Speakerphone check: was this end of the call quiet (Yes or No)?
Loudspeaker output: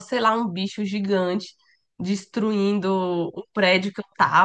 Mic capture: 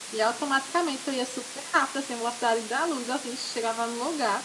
No